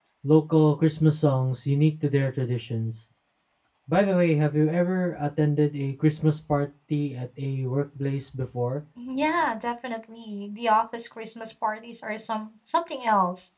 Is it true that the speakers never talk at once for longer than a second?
Yes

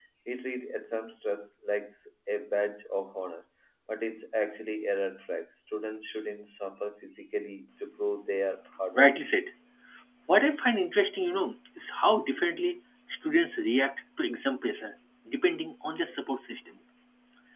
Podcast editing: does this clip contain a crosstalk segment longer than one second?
No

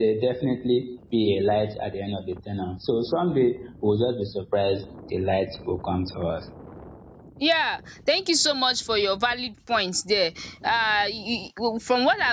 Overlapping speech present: No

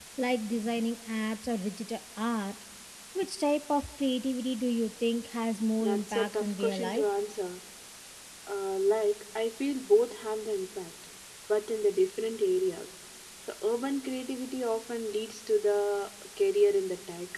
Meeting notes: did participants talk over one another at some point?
Yes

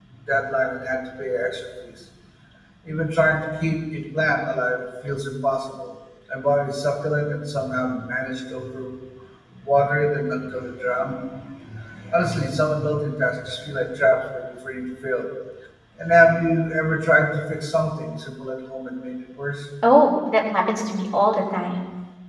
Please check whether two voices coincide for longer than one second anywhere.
No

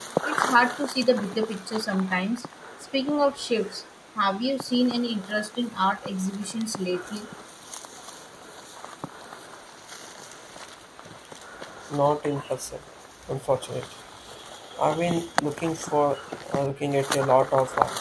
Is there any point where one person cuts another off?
No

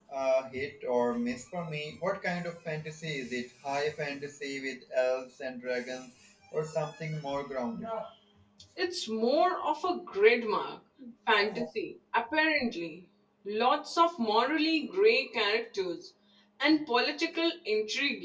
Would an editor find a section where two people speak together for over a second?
No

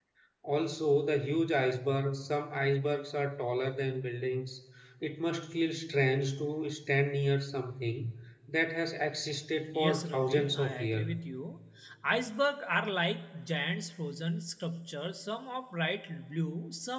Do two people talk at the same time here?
Yes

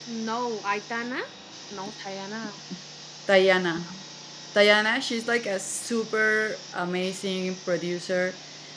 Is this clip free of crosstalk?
Yes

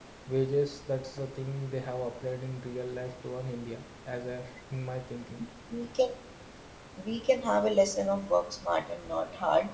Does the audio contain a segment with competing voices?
No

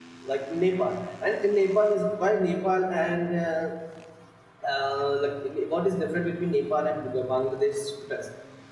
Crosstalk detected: No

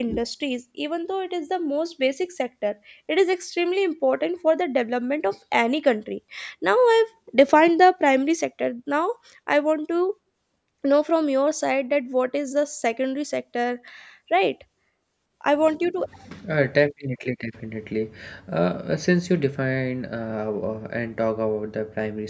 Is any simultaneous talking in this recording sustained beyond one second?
No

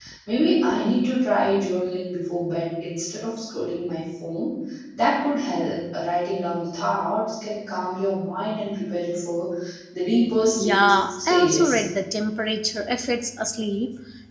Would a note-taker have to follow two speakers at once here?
Yes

